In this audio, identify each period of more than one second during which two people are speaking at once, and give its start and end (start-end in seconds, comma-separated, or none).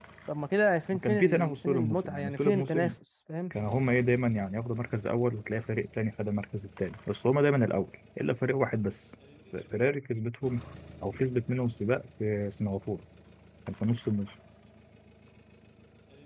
0.9-2.9